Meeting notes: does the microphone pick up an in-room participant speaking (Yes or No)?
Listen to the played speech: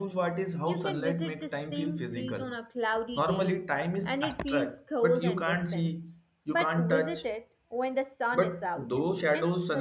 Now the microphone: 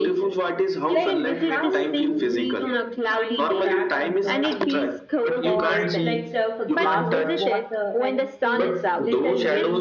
Yes